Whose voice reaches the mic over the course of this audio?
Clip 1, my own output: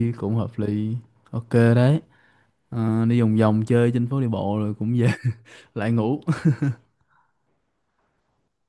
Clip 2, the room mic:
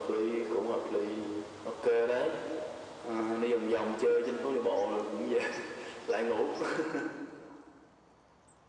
echo only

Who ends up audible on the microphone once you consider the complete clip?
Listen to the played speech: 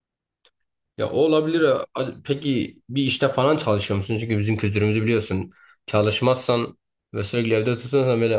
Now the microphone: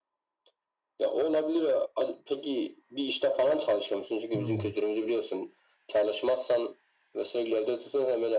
both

